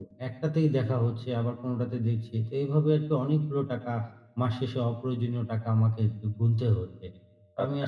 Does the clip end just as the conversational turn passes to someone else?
No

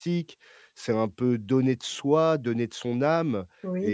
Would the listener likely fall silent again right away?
Yes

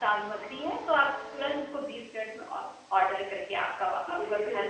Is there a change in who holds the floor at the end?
Yes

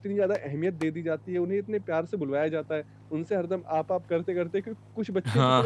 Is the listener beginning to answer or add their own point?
No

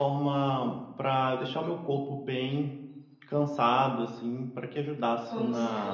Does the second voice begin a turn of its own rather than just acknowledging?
Yes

